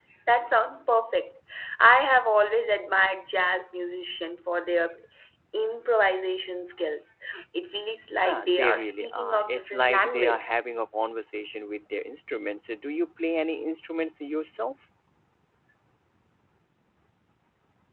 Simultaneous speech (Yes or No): Yes